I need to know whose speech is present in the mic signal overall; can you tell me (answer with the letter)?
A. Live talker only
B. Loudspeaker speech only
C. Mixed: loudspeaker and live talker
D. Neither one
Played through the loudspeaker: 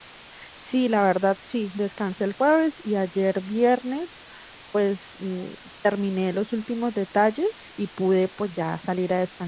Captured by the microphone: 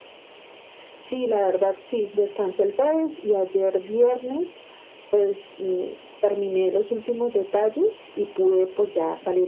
B